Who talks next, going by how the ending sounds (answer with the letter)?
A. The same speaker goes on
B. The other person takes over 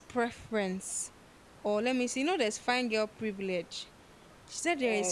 A